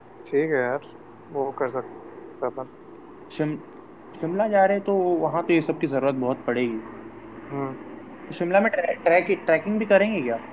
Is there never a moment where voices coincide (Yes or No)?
Yes